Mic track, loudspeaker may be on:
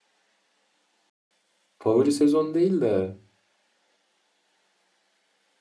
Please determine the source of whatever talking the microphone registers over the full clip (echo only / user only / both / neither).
user only